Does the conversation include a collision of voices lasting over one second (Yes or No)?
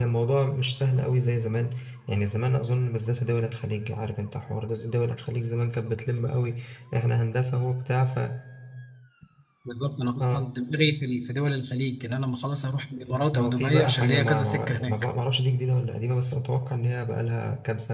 Yes